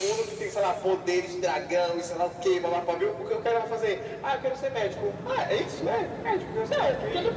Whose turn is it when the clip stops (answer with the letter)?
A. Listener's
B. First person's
A